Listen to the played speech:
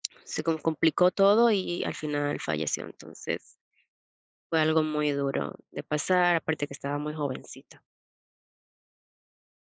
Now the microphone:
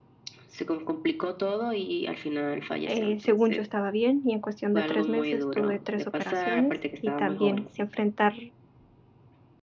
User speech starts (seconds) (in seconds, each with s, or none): 2.9 s